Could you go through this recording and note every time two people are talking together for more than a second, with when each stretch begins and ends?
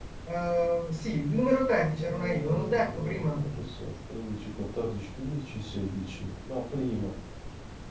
1.9-3.4

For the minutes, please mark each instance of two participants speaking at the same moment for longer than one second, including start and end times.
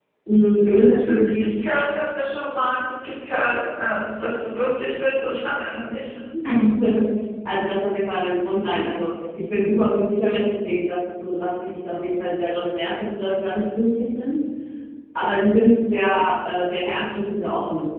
0.6-1.8

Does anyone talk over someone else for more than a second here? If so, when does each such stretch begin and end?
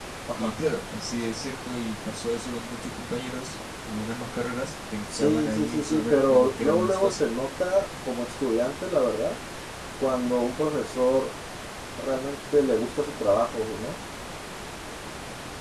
5.2-7.2

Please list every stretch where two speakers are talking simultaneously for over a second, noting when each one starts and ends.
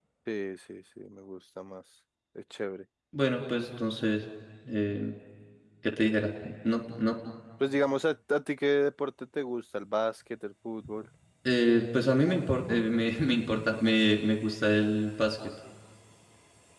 none

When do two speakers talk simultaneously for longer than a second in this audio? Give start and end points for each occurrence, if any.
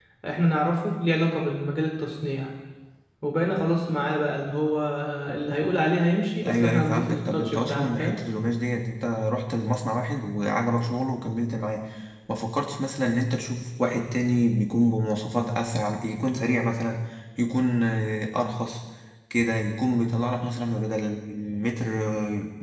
6.4-8.2

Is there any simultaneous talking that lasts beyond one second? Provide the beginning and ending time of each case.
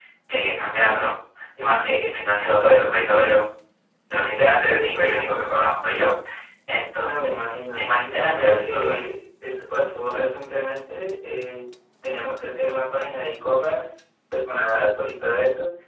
7.8-9.0

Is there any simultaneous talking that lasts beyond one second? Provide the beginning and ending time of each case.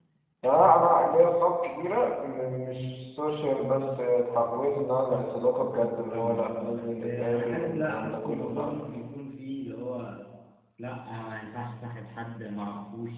6.1-8.8

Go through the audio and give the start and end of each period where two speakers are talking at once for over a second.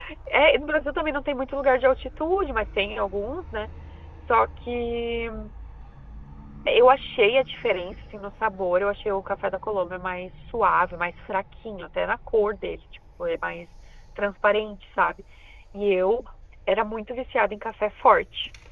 none

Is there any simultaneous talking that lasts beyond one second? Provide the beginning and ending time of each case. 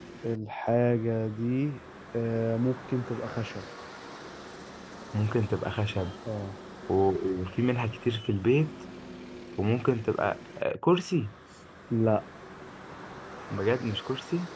none

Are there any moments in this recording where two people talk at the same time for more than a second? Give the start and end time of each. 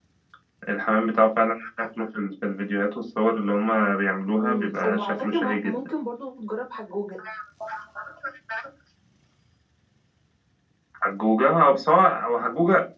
4.3-5.8

